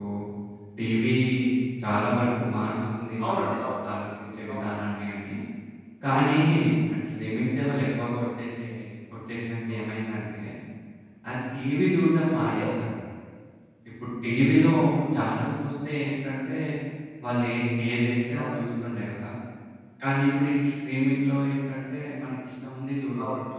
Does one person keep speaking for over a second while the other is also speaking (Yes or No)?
No